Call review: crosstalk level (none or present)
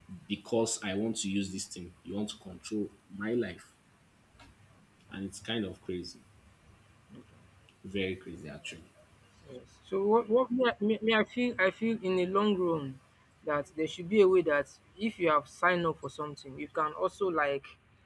none